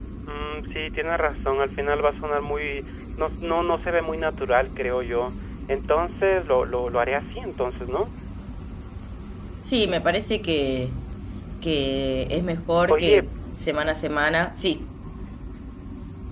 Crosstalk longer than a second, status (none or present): none